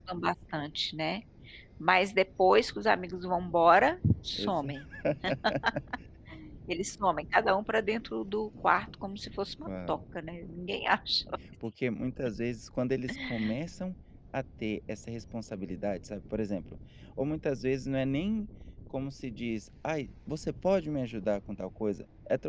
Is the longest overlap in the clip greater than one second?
No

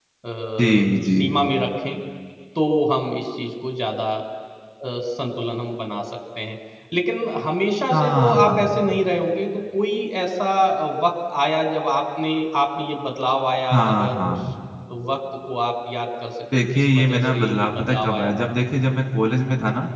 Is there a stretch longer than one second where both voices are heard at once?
Yes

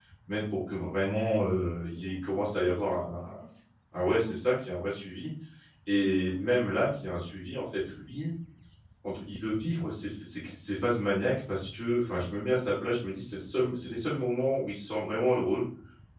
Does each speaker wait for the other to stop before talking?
No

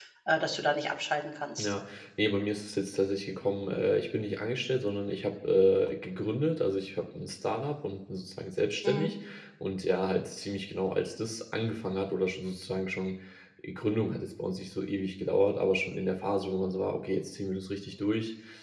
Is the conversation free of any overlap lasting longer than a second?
Yes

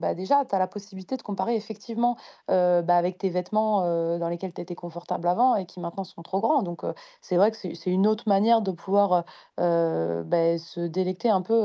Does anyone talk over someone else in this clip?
No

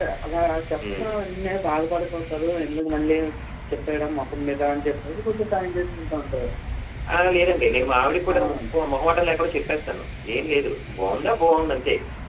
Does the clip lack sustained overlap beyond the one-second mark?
Yes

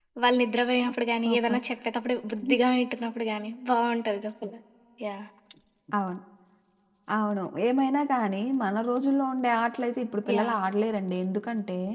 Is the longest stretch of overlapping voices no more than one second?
Yes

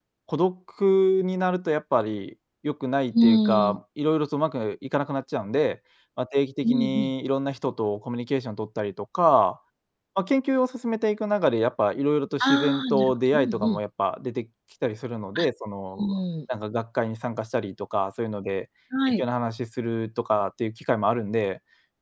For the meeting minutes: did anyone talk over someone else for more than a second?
Yes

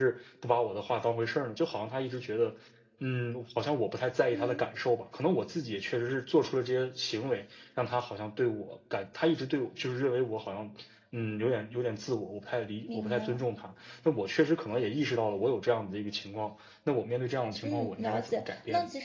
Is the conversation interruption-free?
No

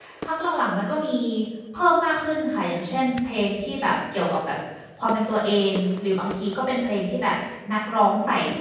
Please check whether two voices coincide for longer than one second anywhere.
No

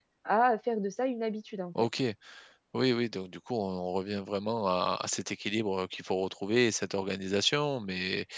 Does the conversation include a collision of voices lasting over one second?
No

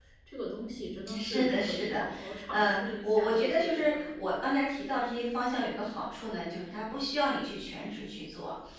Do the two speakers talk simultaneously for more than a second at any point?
Yes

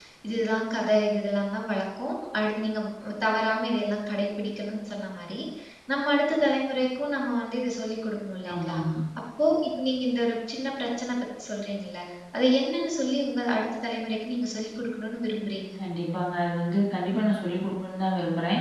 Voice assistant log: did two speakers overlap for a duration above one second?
No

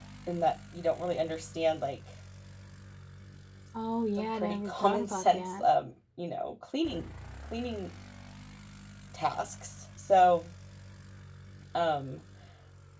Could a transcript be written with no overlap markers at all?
No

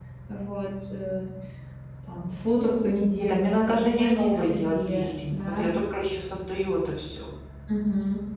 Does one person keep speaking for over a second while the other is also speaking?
Yes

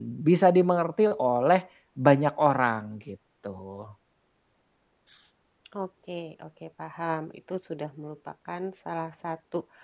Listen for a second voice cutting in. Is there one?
No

